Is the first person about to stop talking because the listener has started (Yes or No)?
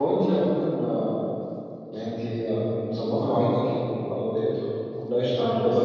Yes